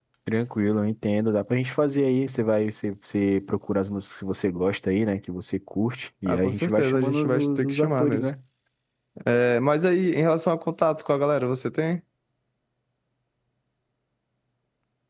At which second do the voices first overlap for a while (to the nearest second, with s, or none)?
6 s